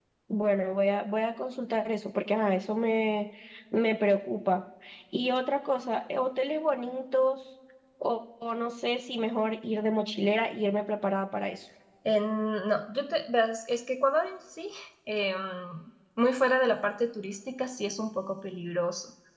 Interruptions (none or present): none